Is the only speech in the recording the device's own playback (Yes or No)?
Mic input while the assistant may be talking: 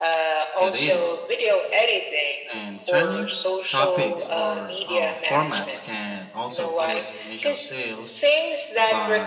No